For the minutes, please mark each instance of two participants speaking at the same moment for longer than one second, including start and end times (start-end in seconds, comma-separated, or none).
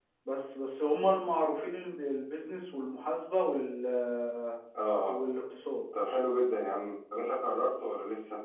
none